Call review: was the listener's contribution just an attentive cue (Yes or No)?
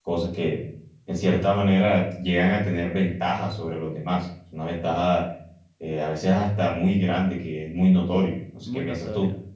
No